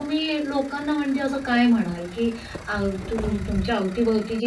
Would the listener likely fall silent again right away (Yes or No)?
Yes